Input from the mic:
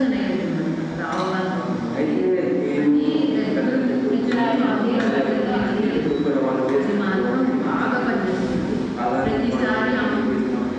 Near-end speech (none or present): present